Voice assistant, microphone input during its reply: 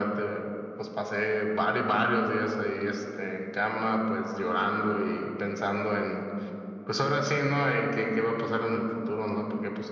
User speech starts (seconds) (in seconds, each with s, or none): none